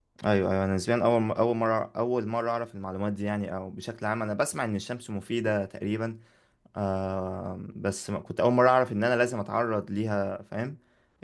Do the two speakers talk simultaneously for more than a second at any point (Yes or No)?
No